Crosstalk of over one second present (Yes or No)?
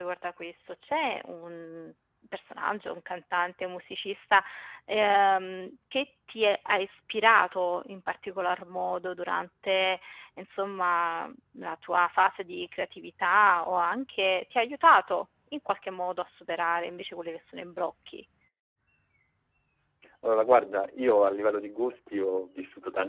No